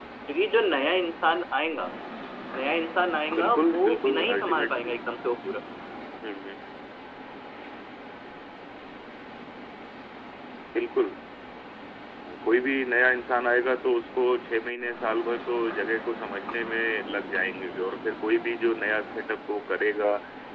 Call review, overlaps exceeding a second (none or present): present